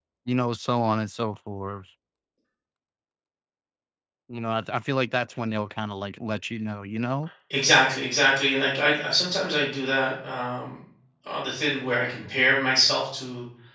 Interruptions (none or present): none